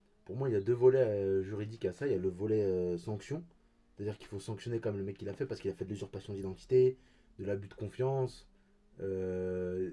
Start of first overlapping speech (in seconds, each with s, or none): none